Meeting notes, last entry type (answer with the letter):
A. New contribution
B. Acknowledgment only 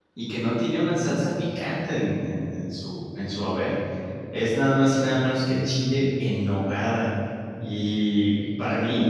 B